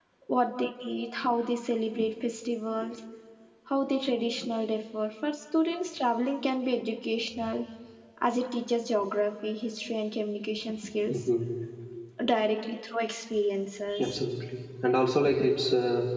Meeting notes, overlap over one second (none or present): none